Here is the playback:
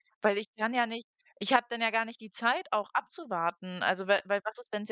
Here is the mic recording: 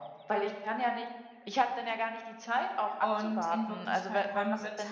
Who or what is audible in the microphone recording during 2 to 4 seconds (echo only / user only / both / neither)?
both